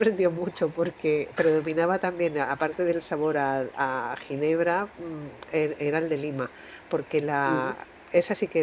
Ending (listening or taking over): listening